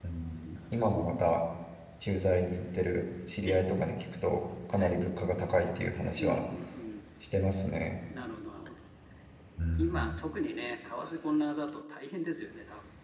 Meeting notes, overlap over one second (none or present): none